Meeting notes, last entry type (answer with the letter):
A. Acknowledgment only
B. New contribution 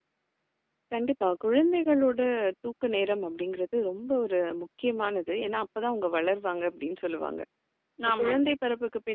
A